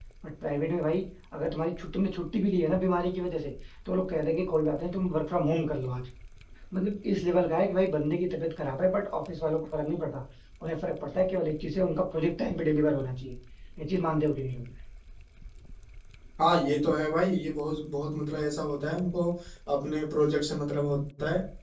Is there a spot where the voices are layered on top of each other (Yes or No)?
No